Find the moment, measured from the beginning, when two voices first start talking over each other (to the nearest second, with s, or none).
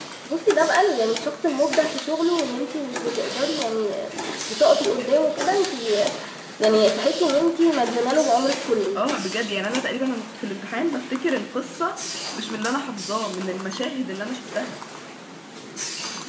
none